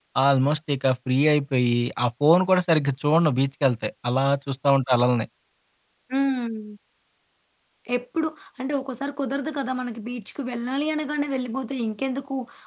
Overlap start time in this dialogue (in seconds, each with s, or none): none